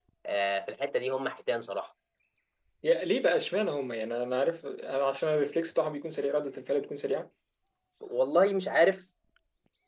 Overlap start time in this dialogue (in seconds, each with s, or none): none